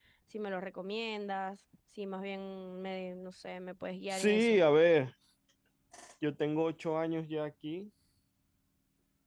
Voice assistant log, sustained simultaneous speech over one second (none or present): none